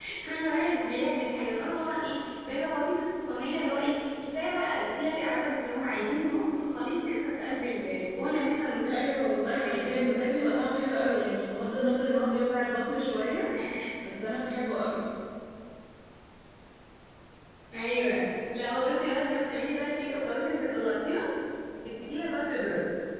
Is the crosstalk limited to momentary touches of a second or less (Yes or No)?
Yes